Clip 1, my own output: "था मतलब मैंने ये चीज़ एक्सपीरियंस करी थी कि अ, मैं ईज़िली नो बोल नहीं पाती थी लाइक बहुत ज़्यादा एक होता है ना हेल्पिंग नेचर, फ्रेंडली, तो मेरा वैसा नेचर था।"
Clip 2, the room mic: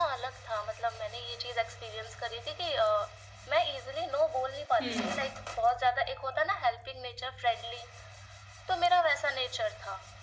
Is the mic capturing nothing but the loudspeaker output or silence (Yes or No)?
No